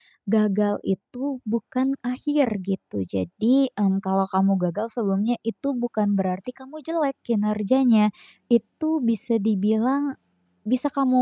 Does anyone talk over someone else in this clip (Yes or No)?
No